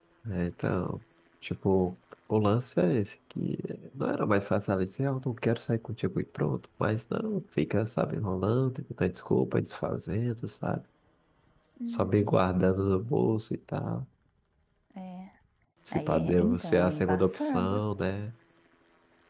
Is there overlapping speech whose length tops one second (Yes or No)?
Yes